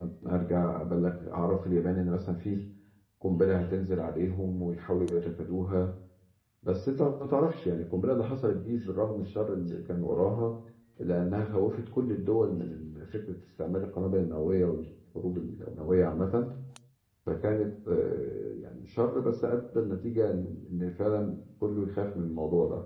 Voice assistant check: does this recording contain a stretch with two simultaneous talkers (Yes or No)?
No